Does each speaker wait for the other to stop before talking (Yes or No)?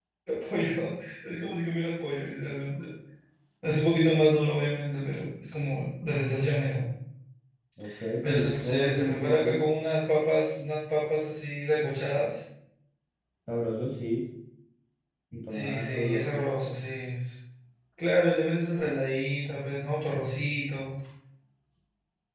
No